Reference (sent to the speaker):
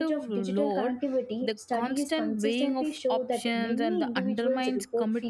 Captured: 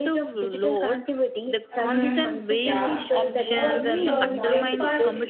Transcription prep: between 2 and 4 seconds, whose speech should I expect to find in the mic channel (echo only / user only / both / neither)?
both